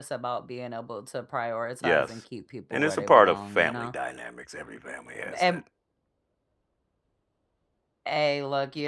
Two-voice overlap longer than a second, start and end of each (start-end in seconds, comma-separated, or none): 2.7-3.9